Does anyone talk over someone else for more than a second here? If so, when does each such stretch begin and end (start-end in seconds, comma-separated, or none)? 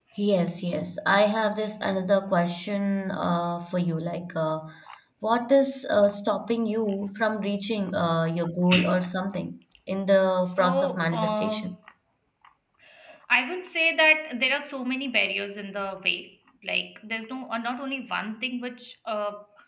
10.4-11.8